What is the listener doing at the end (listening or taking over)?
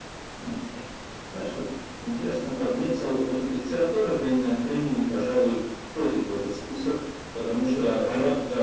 taking over